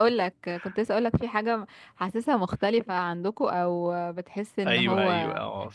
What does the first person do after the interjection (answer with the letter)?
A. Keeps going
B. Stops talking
B